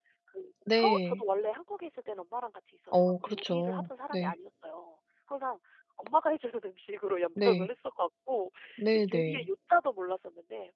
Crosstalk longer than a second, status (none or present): present